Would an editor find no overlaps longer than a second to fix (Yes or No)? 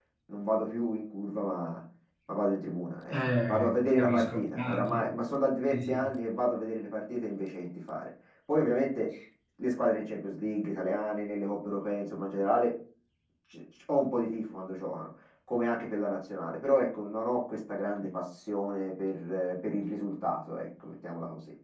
No